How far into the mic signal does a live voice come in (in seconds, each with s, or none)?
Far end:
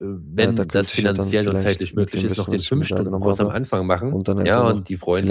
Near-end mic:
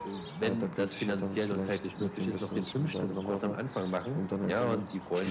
none